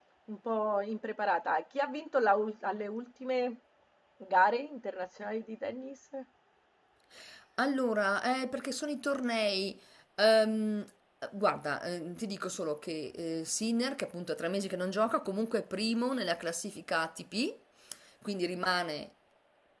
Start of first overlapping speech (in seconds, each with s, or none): none